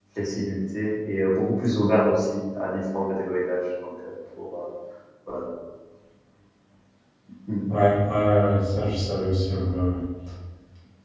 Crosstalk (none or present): none